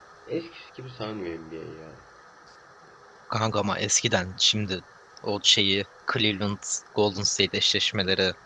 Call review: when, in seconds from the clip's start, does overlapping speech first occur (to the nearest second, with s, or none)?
none